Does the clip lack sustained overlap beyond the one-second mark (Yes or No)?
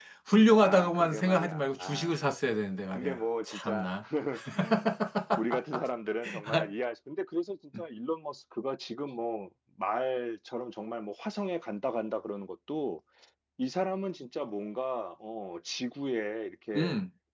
No